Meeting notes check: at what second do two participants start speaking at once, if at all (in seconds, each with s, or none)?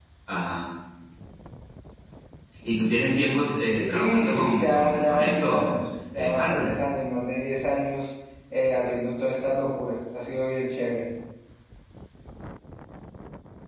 3.8 s